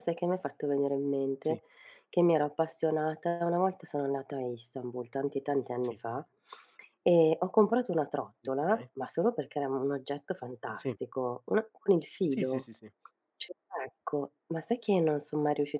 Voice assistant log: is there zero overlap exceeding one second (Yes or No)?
Yes